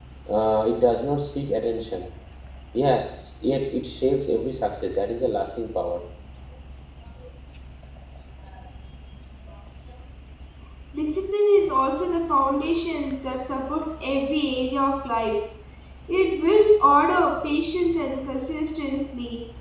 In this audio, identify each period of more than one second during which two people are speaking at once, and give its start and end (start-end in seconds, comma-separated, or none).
none